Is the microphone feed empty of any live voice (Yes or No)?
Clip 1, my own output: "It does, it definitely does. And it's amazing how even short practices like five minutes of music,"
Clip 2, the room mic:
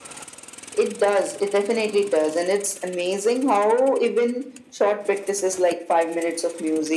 Yes